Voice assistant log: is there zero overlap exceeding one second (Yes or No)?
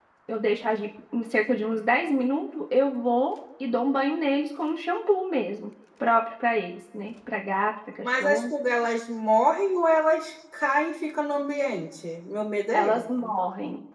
Yes